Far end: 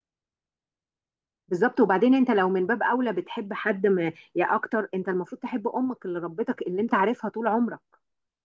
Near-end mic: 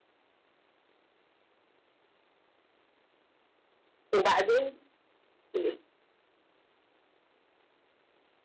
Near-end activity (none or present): present